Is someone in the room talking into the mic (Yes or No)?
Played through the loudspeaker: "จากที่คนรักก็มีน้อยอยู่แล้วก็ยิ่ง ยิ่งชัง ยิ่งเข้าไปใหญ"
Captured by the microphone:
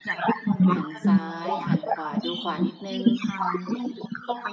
Yes